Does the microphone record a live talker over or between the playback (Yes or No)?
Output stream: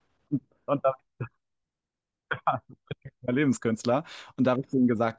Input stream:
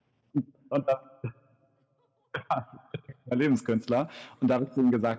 No